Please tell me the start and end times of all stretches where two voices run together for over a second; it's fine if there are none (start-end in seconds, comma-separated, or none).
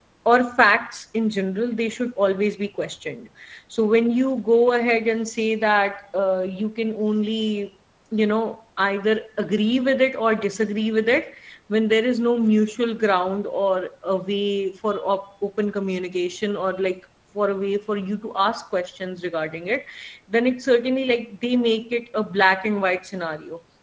none